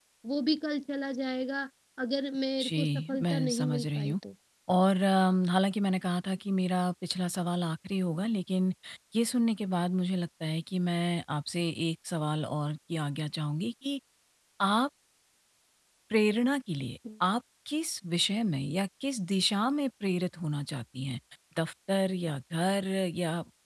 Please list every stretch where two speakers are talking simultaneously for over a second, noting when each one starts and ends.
2.6-4.2

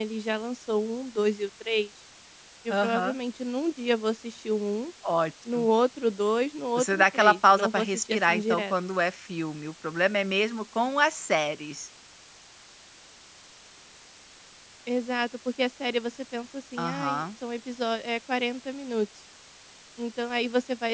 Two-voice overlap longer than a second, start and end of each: 6.8-8.7

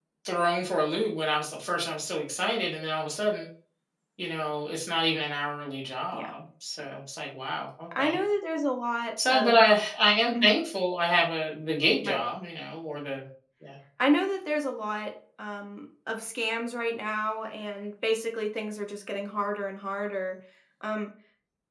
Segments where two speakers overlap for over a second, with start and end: none

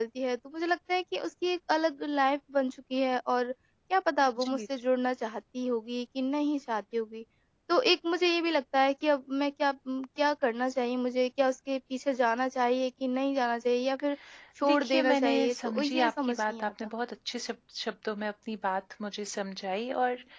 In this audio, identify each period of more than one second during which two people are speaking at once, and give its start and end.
14.6-16.7

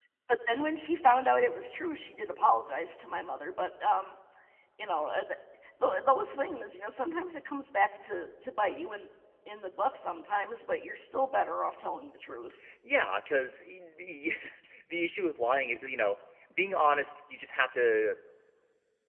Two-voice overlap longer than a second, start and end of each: none

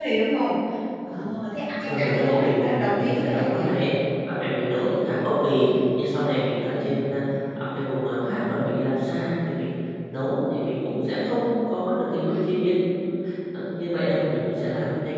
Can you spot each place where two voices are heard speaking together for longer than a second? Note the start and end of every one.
1.8-3.6

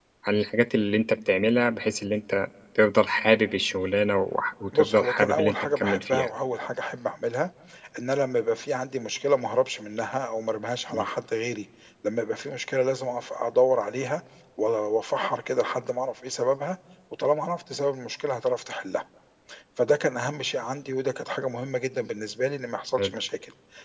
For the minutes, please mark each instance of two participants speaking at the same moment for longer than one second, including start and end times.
4.8-6.3

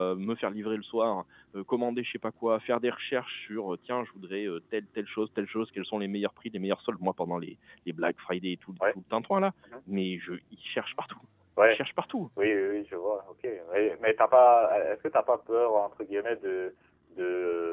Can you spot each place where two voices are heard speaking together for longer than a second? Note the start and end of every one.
none

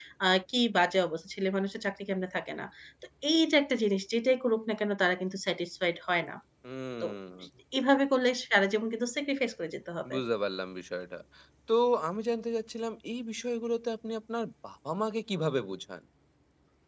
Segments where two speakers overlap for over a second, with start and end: none

